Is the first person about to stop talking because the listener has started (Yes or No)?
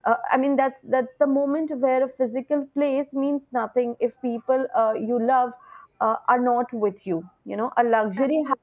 No